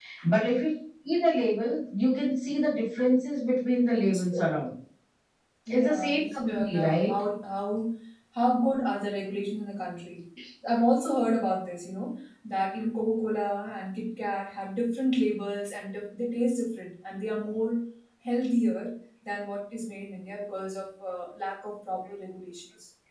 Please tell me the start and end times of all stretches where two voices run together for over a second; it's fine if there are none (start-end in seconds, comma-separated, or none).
5.7-7.1